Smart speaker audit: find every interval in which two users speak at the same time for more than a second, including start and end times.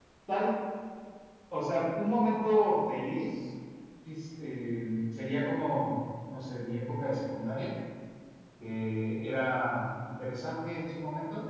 none

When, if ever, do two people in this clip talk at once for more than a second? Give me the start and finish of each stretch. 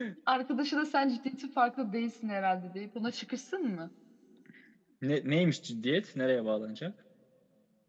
none

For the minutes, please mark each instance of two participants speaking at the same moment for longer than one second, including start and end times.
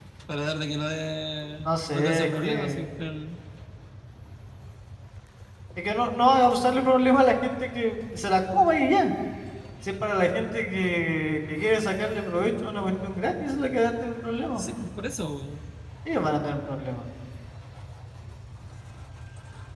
1.6-2.9

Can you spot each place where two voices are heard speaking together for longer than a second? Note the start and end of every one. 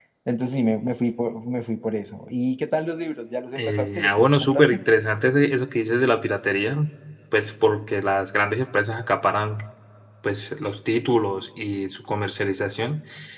3.5-4.8

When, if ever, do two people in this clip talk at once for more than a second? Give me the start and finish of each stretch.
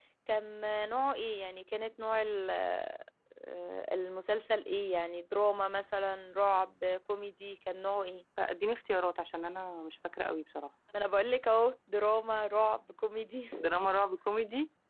none

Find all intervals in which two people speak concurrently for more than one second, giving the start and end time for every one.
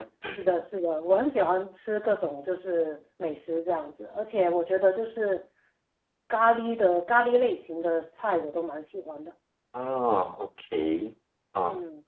none

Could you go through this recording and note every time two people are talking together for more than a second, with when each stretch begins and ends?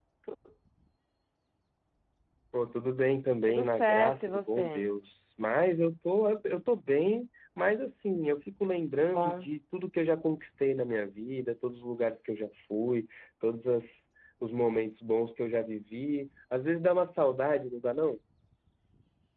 3.5-4.9

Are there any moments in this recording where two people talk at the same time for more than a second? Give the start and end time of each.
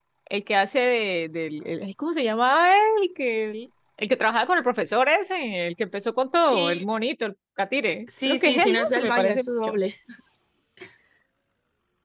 8.2-9.8

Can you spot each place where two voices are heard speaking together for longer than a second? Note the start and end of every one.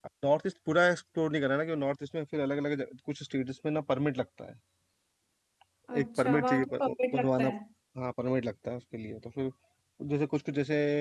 6.0-7.5

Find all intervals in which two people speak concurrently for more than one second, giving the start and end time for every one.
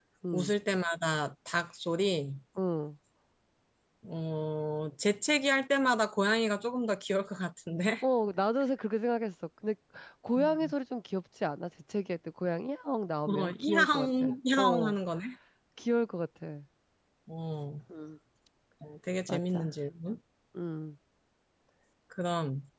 13.3-14.9

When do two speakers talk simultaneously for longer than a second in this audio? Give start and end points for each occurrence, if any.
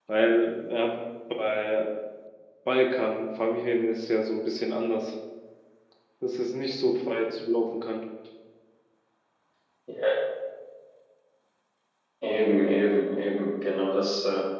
none

